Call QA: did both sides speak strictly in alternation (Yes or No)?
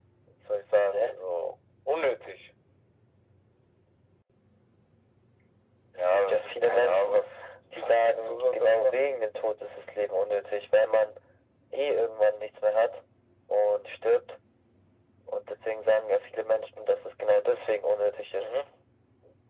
No